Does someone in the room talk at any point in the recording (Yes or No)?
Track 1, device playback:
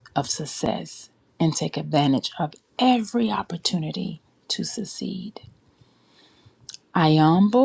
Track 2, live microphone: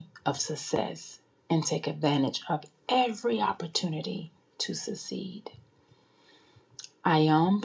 No